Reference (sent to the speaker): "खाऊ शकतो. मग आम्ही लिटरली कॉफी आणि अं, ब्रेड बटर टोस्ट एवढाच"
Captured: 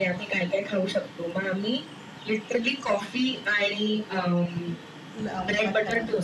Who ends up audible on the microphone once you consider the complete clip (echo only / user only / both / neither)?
both